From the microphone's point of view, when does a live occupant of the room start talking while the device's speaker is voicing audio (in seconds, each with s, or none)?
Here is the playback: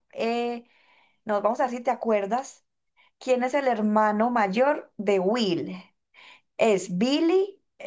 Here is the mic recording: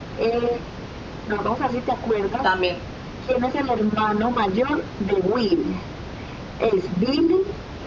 2.4 s